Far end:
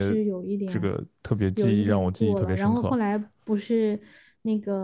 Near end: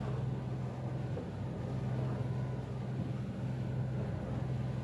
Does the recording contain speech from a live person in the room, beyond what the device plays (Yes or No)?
No